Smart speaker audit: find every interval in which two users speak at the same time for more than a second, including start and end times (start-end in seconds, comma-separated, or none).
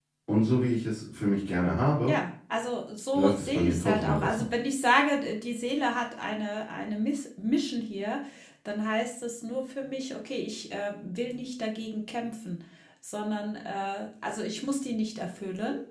3.1-4.5